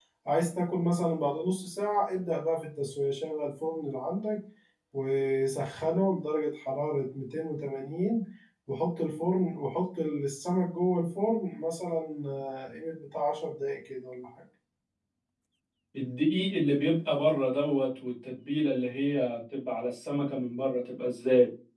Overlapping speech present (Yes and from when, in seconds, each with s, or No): No